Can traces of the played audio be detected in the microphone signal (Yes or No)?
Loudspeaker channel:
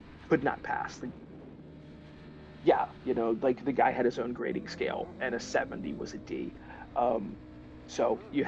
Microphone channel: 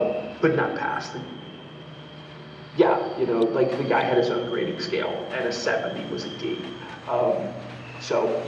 Yes